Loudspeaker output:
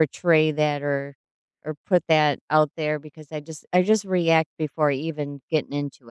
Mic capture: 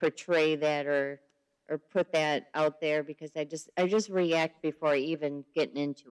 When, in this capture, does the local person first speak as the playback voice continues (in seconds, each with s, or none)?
none